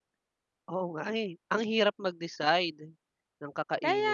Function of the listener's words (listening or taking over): taking over